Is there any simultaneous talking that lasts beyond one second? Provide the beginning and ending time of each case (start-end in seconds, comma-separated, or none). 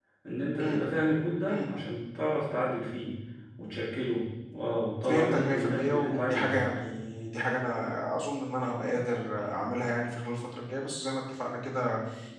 5.1-6.7